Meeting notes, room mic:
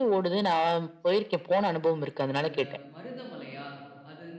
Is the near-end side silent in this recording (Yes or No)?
No